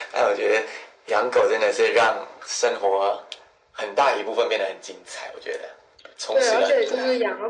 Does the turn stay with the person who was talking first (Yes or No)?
No